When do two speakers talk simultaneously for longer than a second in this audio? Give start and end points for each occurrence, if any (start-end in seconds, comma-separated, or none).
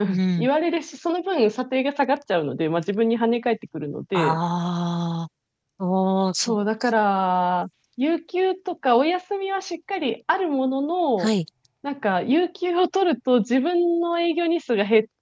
none